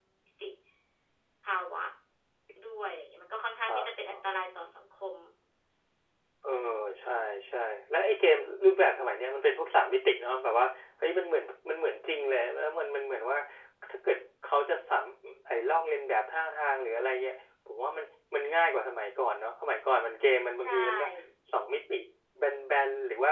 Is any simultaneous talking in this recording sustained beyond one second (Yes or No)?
No